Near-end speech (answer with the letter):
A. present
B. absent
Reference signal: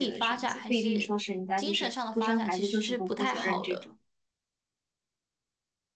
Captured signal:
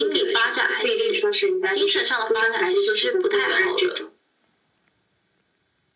B